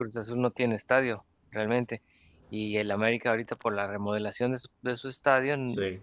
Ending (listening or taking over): listening